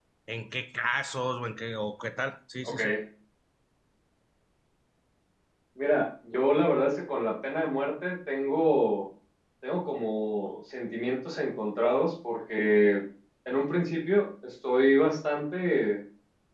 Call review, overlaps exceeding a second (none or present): none